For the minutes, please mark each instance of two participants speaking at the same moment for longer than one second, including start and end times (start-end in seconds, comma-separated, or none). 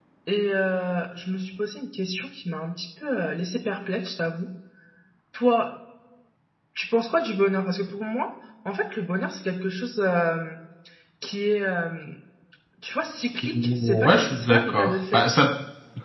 13.4-15.3